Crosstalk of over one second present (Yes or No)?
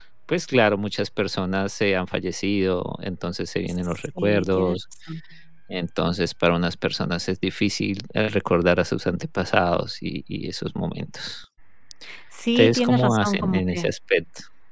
Yes